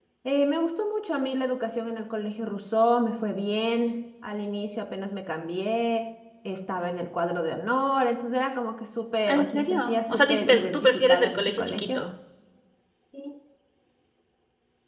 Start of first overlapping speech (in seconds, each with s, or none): 9.3 s